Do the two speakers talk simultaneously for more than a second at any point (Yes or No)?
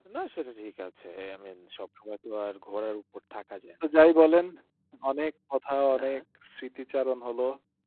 No